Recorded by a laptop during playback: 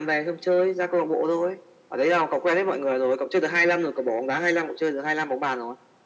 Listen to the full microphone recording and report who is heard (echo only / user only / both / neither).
echo only